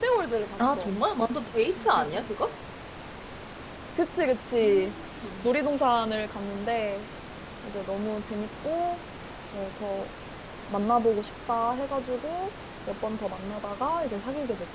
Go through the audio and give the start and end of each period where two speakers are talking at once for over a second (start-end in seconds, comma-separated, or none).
none